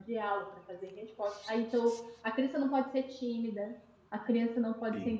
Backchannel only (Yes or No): Yes